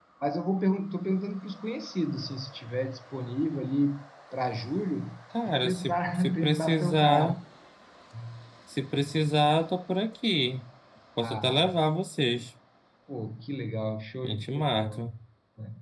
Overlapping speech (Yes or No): Yes